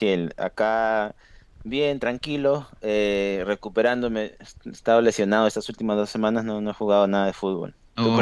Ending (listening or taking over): taking over